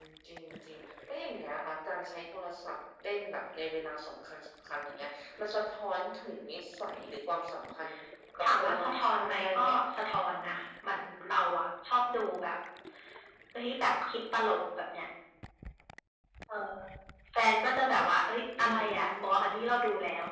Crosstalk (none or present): present